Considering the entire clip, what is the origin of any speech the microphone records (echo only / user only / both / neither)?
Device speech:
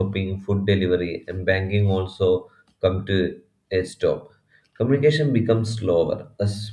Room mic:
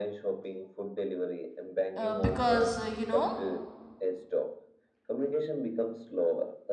both